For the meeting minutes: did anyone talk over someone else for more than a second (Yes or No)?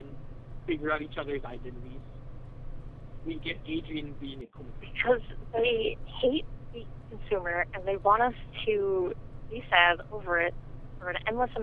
No